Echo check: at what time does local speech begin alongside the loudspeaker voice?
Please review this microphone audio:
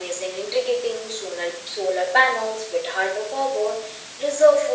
none

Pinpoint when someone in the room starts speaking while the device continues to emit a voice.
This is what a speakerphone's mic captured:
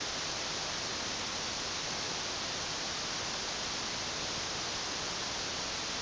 none

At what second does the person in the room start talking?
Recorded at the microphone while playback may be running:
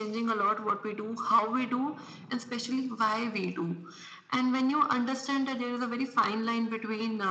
none

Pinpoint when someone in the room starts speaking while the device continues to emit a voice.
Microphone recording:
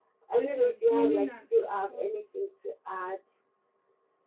0.3 s

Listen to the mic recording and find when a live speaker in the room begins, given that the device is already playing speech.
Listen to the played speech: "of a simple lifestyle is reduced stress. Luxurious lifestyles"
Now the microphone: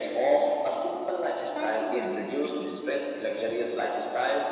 1.4 s

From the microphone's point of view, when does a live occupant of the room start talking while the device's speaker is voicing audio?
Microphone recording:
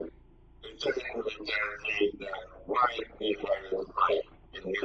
none

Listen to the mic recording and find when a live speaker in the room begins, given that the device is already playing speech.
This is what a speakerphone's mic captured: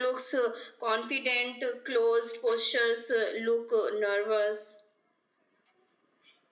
none

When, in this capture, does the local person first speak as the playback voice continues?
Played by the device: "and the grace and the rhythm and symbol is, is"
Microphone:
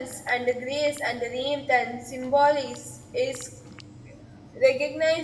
none

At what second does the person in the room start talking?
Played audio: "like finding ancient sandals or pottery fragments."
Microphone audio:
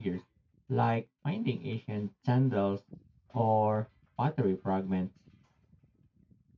none

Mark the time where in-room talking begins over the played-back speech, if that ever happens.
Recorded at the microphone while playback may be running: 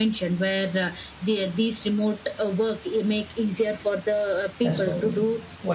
4.6 s

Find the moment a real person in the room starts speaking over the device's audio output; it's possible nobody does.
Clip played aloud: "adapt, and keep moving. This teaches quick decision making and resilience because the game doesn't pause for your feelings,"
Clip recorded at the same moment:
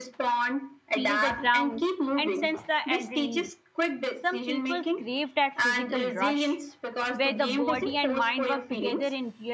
0.9 s

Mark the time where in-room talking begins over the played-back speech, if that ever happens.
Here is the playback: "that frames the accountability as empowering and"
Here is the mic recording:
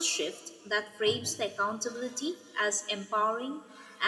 none

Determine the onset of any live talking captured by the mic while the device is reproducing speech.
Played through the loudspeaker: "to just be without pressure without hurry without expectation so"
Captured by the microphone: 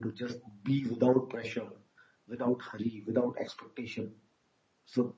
none

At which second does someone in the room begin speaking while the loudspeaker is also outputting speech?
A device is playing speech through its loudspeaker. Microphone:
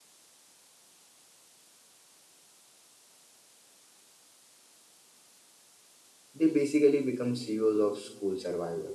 6.3 s

